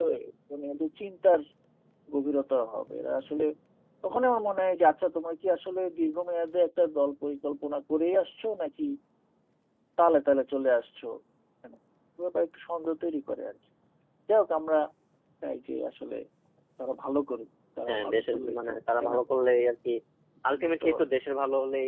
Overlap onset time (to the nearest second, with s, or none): 18 s